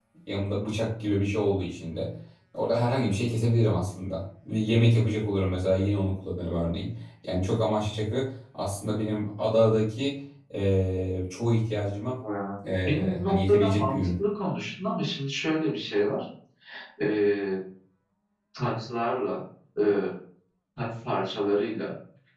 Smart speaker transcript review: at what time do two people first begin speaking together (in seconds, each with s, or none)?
12.8 s